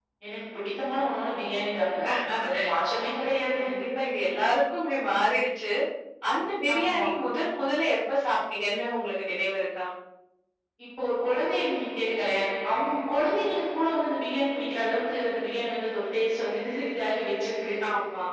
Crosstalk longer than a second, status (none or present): none